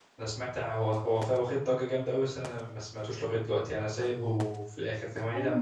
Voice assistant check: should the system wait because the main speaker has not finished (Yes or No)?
No